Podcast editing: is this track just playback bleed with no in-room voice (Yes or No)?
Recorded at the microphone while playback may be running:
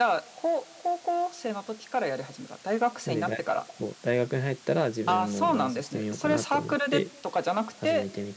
No